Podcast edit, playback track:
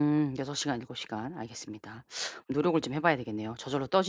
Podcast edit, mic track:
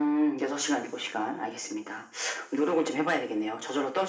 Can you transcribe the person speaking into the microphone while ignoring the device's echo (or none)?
none